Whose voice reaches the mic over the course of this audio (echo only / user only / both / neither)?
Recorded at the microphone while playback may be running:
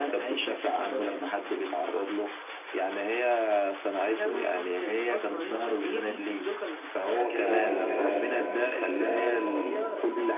both